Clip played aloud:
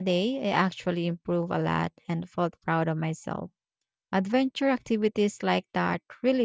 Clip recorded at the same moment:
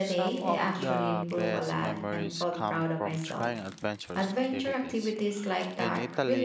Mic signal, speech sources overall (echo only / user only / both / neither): both